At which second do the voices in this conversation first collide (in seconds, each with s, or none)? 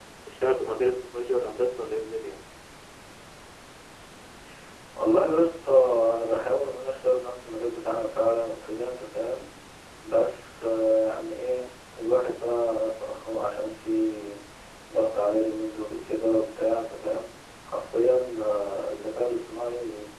none